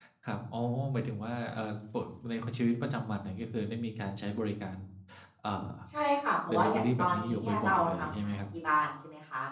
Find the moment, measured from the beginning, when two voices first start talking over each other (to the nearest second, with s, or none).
7 s